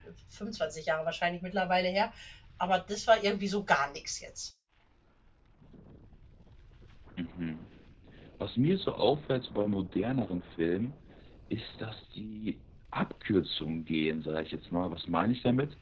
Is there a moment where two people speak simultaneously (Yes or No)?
No